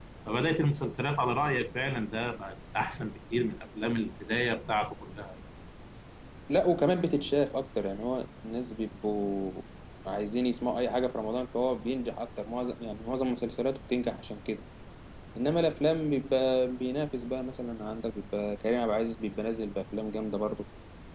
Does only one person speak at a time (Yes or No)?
Yes